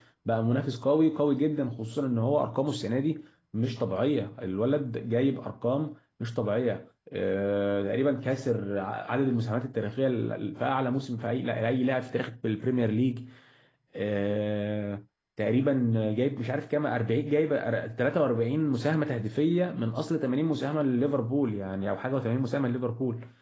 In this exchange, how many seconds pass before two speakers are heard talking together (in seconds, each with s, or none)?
none